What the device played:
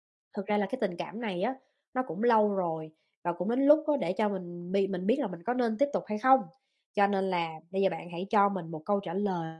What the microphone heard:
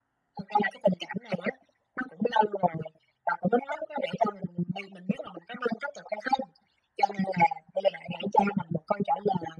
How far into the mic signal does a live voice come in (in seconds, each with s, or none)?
none